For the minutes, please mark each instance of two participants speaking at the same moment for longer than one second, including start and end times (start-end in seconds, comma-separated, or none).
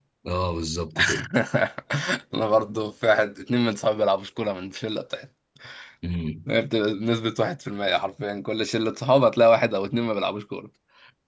none